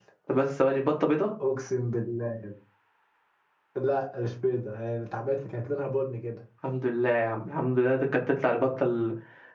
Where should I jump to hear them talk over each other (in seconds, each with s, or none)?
none